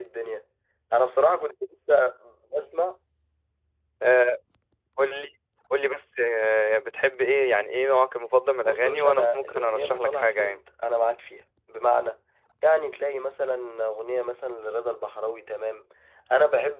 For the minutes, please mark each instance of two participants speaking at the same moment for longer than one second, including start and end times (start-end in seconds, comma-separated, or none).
8.6-10.6